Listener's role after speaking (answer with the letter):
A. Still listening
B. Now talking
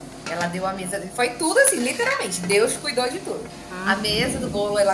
A